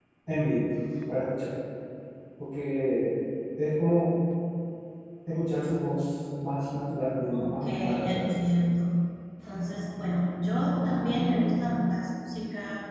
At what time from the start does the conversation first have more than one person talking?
7 s

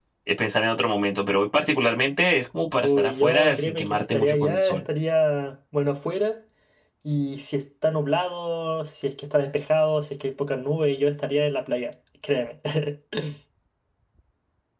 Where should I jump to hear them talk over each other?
3 s

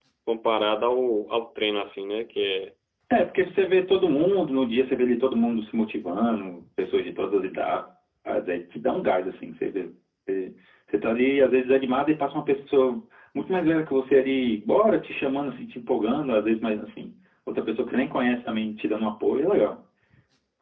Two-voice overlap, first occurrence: none

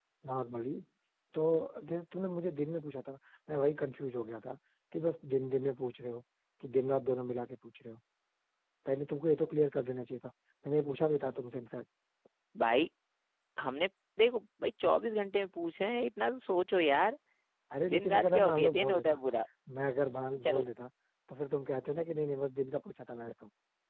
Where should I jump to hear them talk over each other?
18 s

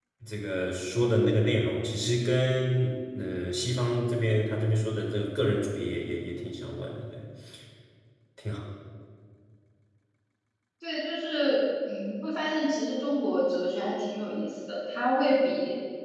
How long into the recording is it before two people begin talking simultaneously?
none

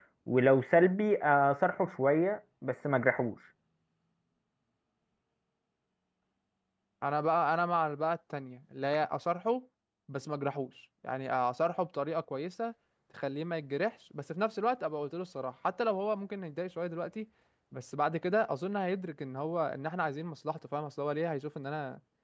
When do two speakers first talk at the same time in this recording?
none

